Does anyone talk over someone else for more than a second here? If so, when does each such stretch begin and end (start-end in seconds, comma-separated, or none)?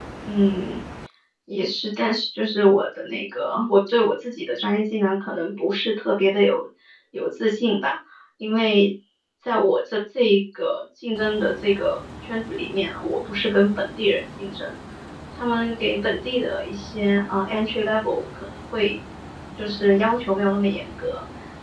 none